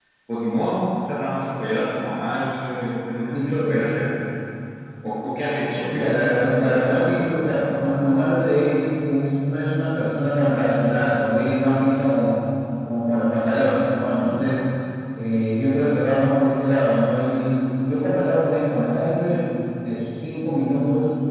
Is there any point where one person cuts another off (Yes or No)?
Yes